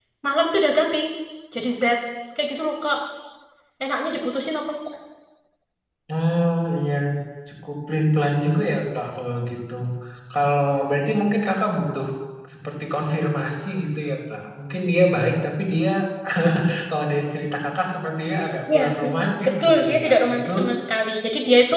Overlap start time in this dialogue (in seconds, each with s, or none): 18.7 s